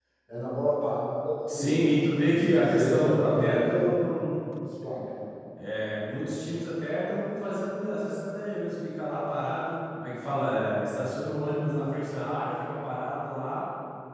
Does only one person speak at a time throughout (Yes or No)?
No